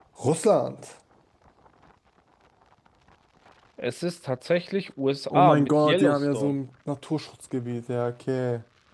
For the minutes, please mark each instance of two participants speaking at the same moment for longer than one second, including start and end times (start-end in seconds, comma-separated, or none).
5.3-6.5